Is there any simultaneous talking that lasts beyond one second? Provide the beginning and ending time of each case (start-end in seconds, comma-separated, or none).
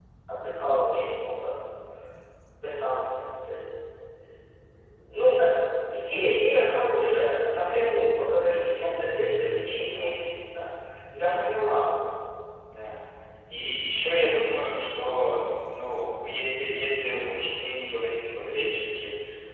none